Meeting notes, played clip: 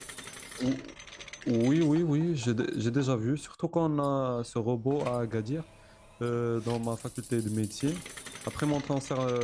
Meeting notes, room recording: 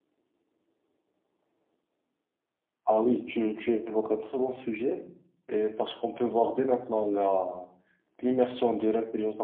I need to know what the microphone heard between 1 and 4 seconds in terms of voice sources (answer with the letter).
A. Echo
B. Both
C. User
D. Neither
C